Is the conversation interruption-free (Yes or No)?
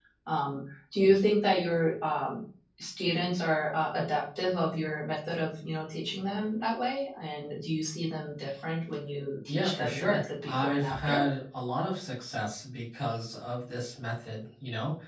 No